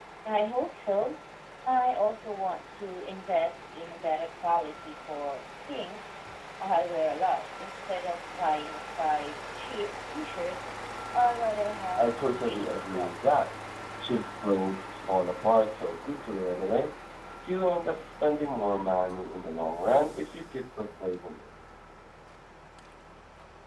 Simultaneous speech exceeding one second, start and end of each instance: 12.0-13.4

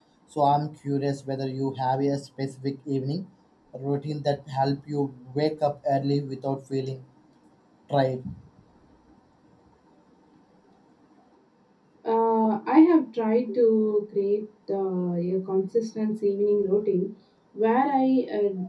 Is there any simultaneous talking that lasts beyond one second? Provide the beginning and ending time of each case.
none

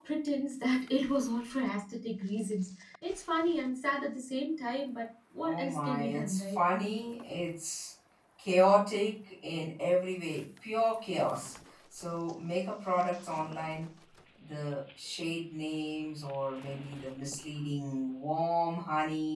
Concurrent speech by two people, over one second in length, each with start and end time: 5.4-6.6

